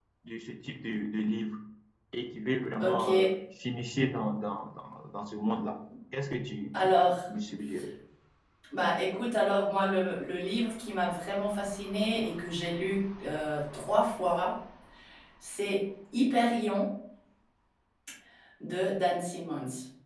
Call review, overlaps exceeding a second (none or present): none